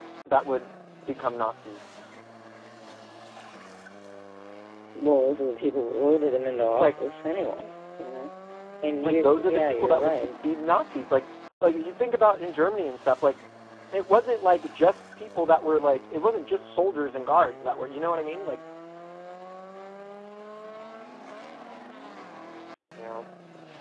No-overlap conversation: No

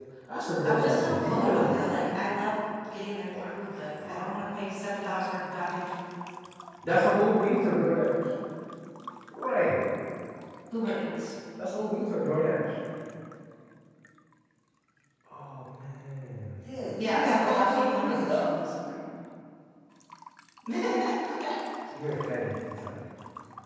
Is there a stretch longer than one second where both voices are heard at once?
Yes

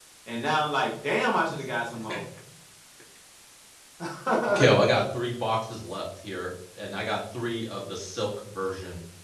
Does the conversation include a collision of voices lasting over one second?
No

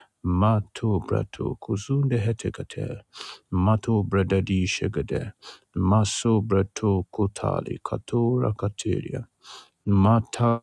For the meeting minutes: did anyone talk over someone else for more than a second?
No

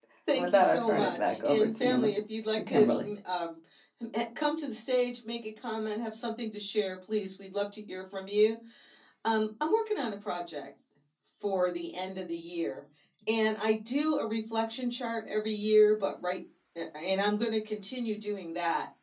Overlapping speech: Yes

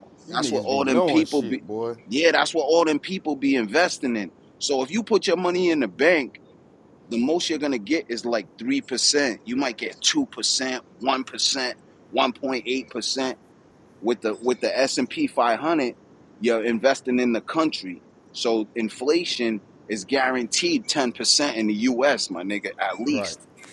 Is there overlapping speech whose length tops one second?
Yes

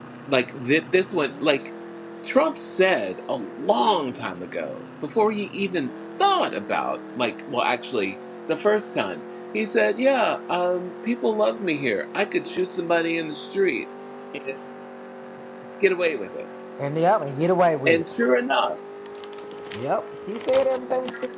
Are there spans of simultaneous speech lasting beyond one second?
No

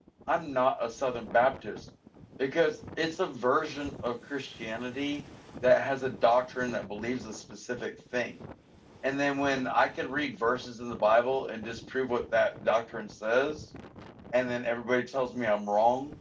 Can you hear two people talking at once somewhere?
No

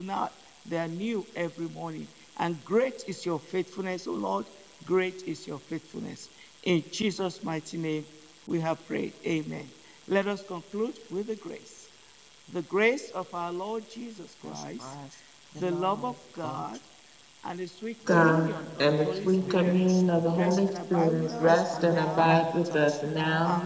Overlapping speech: Yes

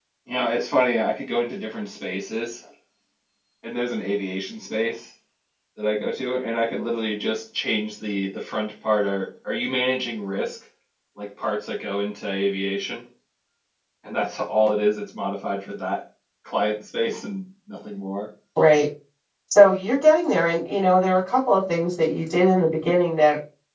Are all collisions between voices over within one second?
Yes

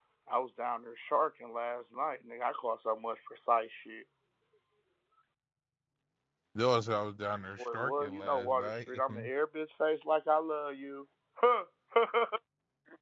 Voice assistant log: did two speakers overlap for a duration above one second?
Yes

